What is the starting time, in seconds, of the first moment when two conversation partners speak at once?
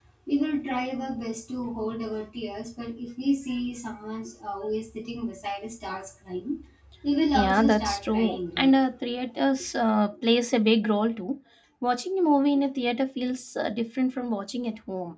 7.4 s

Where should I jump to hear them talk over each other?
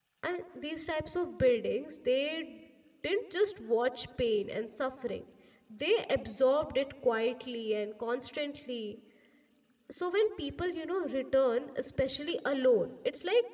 none

